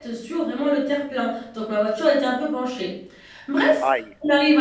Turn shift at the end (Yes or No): No